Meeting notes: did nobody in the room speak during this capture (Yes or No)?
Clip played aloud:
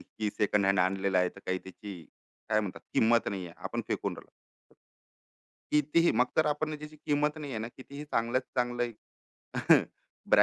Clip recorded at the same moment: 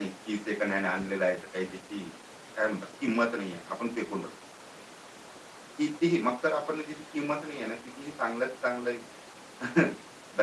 Yes